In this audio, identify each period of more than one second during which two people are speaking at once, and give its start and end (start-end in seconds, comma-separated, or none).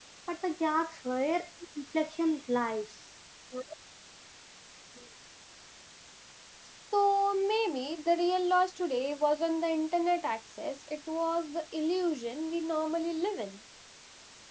none